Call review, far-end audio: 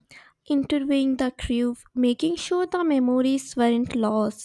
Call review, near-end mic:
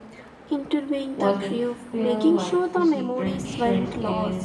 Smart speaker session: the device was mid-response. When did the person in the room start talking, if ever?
1.1 s

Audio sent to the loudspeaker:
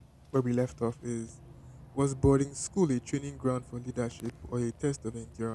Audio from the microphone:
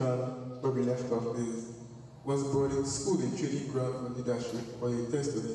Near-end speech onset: none

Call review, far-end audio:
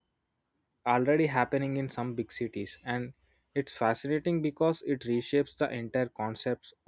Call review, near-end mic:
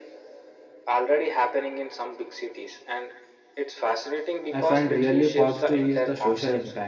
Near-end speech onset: 4.5 s

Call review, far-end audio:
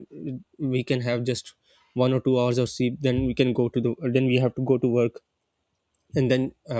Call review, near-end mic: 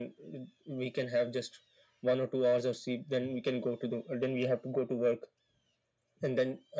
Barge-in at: none

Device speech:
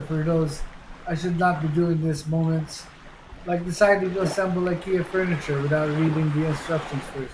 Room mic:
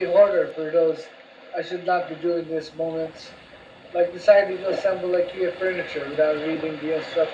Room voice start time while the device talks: none

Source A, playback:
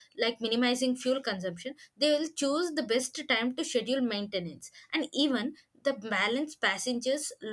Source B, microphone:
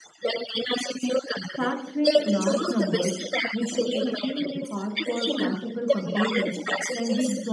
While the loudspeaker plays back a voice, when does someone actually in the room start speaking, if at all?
1.5 s

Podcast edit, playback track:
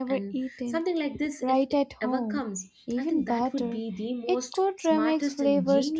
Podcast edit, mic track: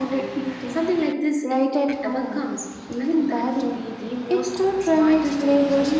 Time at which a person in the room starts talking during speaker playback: none

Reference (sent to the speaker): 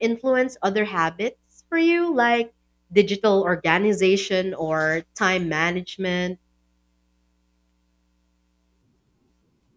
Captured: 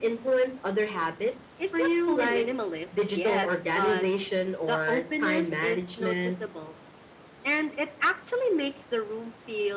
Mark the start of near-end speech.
1.6 s

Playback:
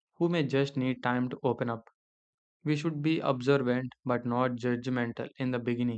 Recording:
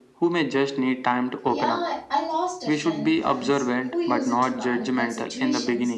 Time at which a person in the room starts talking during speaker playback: 1.4 s

